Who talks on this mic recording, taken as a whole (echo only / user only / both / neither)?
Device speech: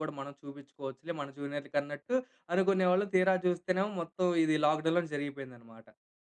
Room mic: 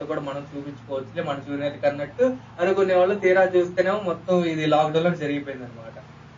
echo only